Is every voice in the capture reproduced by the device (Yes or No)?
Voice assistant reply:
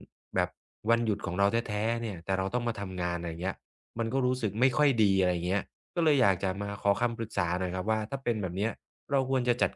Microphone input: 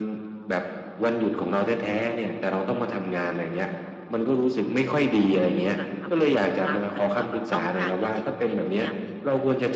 No